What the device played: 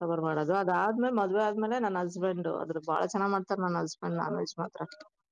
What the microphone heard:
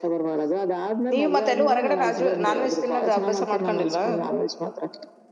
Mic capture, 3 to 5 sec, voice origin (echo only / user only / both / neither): both